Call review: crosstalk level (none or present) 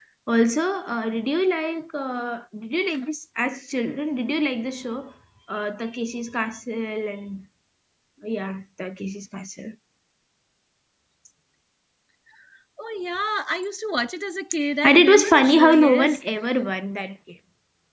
present